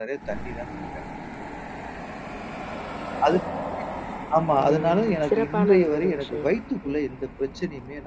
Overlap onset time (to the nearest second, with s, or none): 5 s